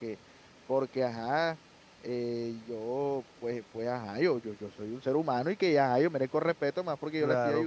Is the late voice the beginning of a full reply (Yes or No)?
Yes